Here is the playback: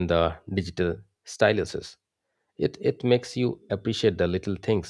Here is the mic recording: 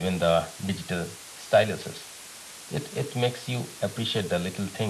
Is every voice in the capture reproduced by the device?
Yes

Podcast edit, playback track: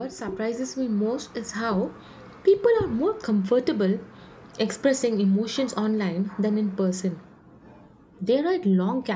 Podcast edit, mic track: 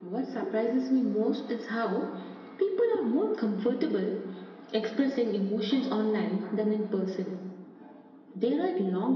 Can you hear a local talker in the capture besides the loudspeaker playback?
No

